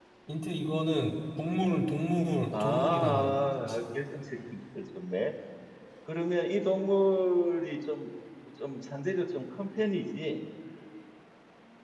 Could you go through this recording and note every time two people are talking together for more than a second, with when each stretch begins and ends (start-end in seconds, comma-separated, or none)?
2.5-3.8